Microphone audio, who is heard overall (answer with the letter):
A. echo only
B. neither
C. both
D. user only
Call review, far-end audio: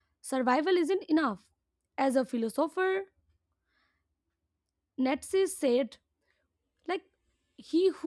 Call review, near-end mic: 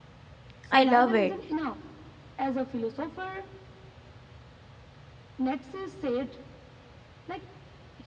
C